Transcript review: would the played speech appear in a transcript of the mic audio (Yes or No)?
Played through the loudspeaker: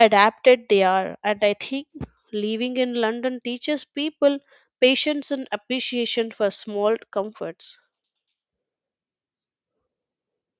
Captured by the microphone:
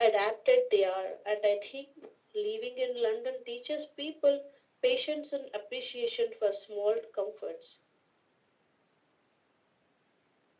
Yes